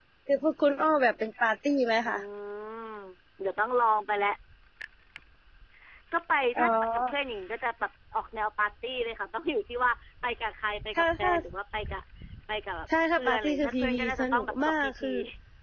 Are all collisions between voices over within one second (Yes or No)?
No